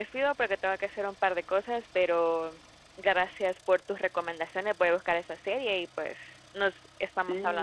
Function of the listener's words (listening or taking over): taking over